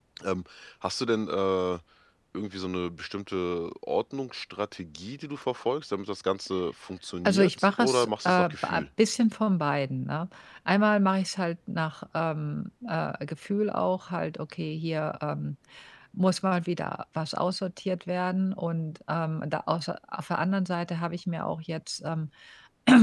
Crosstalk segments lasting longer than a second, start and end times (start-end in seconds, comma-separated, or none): 7.2-8.8